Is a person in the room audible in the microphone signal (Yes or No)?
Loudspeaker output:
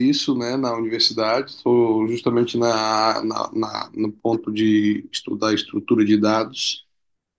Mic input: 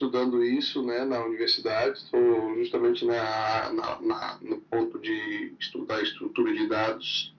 No